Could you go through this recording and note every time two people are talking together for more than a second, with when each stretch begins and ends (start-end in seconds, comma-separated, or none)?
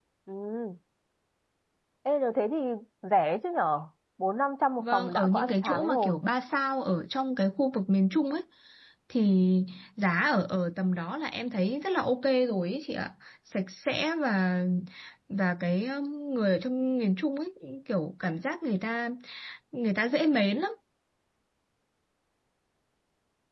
4.8-6.2